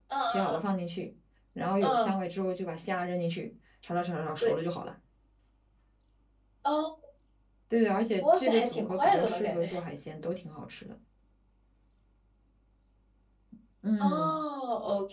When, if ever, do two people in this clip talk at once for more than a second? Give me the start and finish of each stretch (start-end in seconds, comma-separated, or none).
8.2-9.7